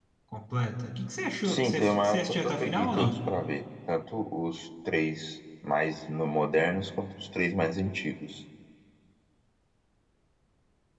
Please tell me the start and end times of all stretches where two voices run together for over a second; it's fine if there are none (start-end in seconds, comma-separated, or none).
1.4-3.2